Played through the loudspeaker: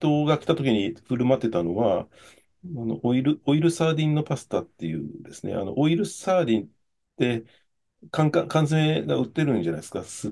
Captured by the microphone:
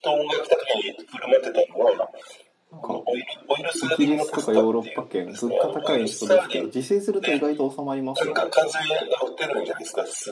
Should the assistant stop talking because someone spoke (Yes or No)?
Yes